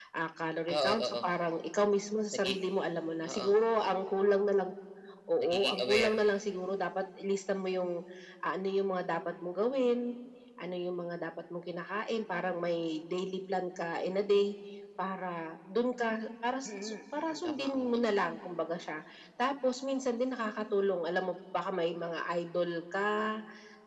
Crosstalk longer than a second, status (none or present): present